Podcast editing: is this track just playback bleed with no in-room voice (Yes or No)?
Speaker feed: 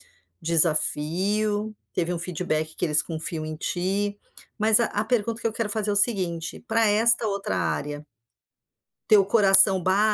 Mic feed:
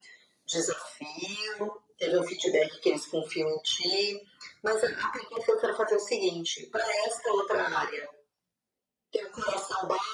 Yes